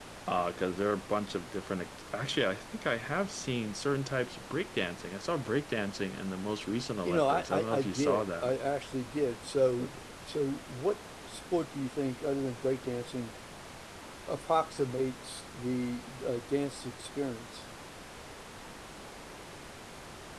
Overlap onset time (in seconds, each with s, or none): 7.0 s